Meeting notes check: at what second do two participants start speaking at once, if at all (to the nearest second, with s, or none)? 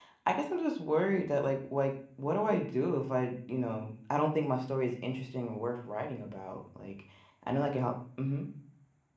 none